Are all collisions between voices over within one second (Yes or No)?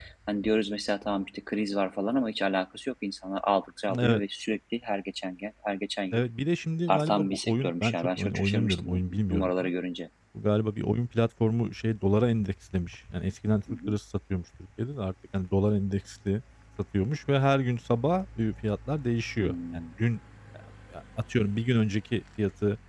No